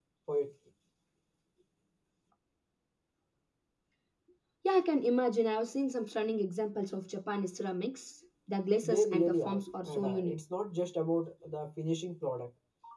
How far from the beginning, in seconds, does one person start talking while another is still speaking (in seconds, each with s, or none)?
8.8 s